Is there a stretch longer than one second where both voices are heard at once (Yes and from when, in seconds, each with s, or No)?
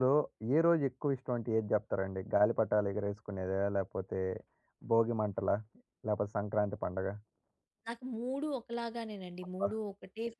No